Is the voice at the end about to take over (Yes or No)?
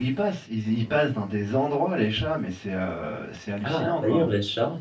Yes